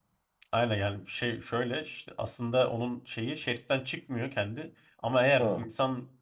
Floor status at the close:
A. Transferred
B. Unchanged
B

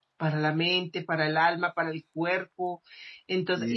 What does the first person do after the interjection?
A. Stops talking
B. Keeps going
B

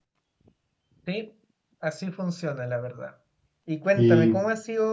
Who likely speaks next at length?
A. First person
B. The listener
A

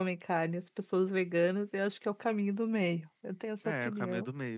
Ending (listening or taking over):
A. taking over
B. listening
A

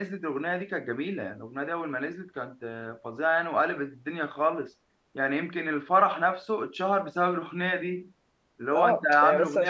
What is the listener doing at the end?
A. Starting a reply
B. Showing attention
A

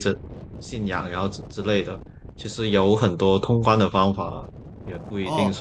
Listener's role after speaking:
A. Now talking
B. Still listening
A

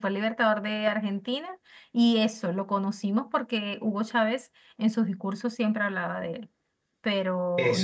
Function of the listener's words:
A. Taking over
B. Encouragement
A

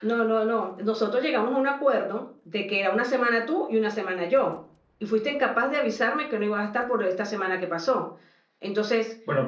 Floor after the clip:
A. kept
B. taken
A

